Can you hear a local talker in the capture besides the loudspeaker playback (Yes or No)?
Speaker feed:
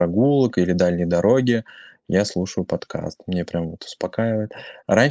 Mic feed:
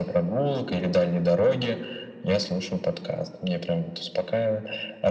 No